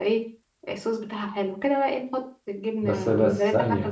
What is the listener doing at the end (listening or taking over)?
taking over